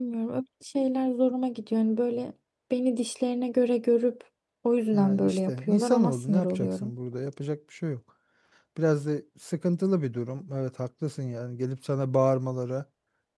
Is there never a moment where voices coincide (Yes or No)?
No